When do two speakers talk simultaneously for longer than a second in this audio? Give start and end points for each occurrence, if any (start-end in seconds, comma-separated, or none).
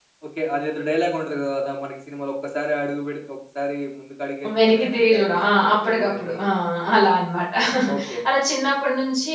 4.6-6.3